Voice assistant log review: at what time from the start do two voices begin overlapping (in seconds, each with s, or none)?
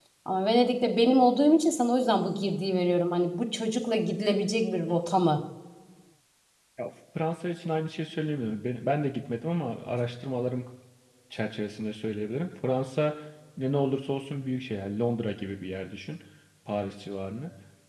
none